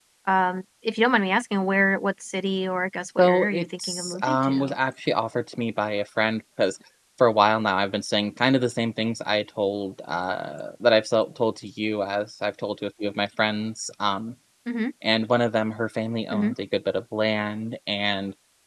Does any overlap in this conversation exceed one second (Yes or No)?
Yes